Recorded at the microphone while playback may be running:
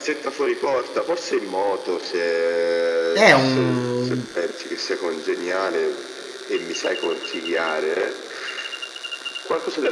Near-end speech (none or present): present